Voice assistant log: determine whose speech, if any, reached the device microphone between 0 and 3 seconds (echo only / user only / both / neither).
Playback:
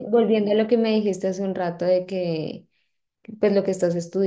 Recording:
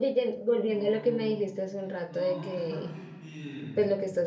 both